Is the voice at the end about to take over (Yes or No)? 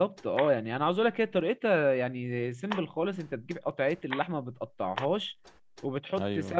No